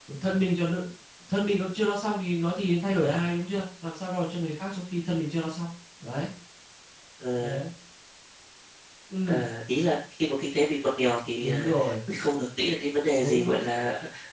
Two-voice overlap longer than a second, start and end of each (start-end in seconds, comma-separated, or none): none